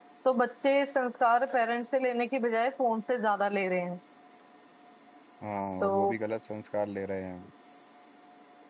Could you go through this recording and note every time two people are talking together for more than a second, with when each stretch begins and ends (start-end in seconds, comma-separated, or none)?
none